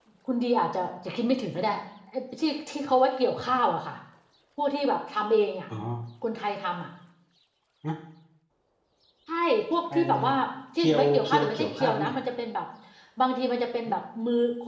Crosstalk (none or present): present